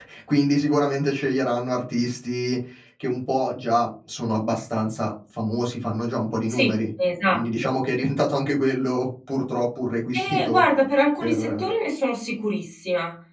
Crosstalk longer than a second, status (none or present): none